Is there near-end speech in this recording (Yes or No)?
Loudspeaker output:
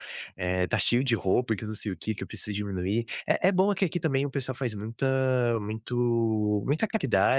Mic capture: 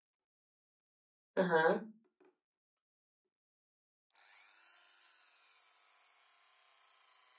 Yes